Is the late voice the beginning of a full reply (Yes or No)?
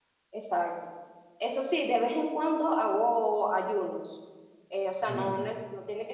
No